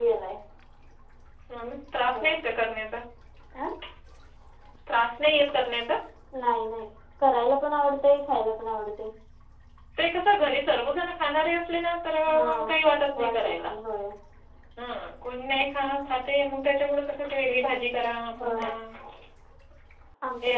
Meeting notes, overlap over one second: none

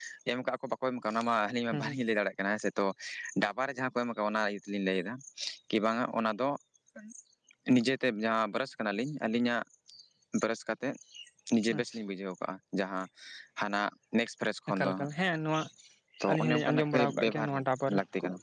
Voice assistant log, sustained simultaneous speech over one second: present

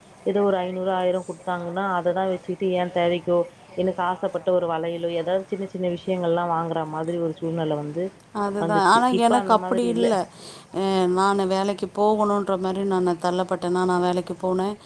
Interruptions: present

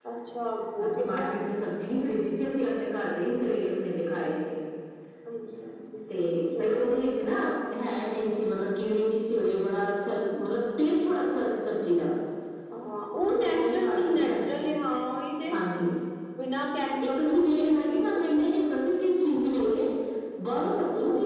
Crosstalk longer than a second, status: present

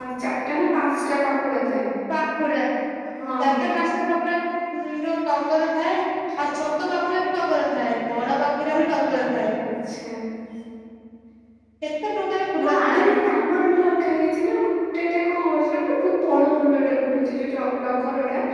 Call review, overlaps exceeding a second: none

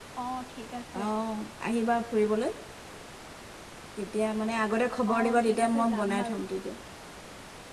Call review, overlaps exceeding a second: present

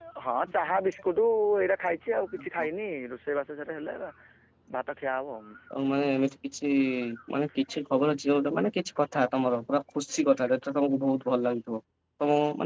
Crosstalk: none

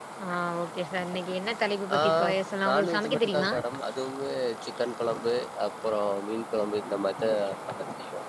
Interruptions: present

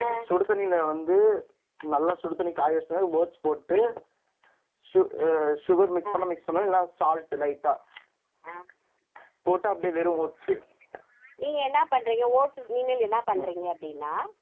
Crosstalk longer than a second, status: none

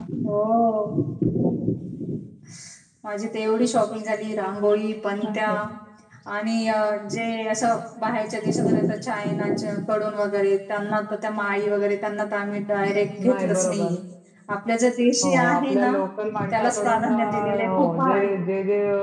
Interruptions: present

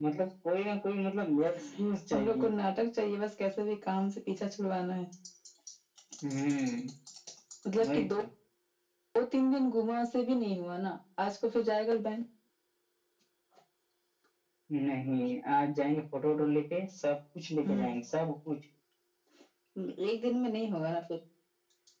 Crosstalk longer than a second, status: none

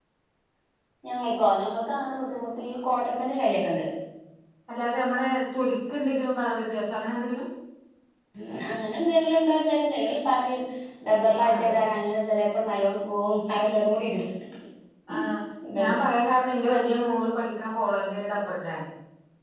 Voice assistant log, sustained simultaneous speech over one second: none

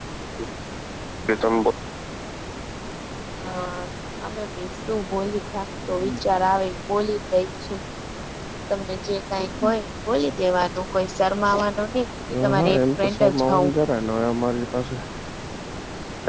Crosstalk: present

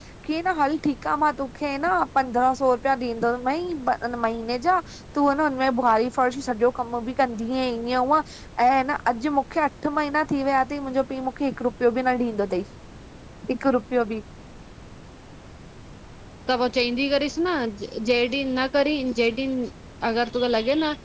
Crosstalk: none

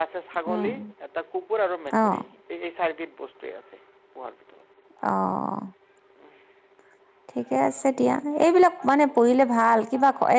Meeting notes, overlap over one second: none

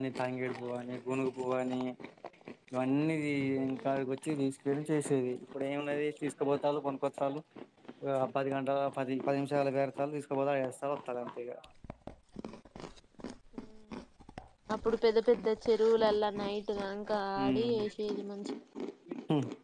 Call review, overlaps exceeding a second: none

